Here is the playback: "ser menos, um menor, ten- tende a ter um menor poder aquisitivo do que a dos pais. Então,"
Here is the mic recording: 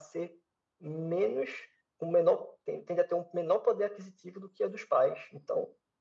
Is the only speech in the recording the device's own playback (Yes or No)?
Yes